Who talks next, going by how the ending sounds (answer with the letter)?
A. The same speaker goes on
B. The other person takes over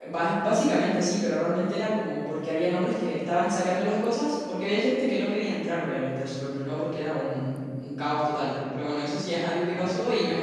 A